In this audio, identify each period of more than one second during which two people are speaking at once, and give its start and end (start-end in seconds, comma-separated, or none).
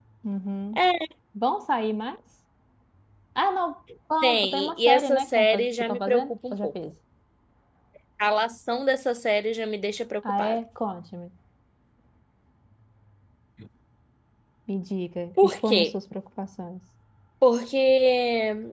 4.2-6.7